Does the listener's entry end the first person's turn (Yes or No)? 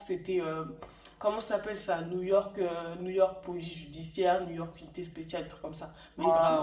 Yes